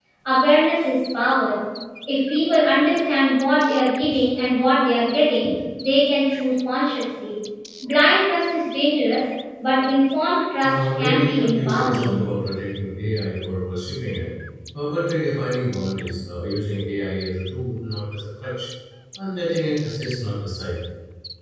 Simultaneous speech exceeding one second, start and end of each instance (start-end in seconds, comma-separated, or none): 10.6-12.2